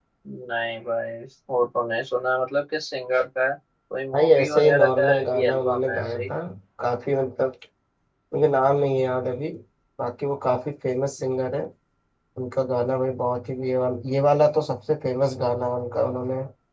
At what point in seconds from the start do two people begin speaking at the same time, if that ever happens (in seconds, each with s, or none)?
4.1 s